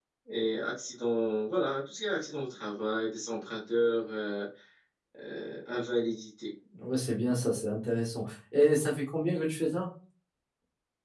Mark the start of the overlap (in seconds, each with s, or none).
none